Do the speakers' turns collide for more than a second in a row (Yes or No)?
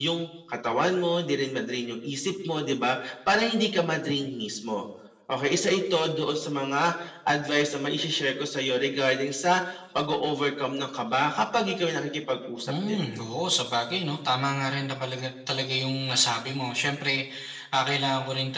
No